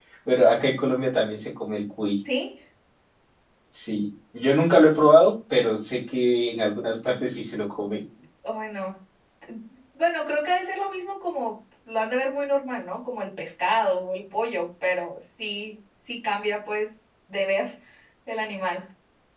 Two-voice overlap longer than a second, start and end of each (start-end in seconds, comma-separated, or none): none